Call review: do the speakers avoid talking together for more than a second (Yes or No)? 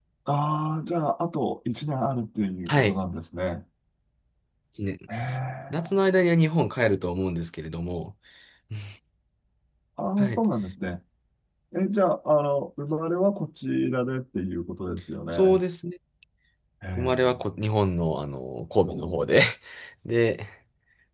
Yes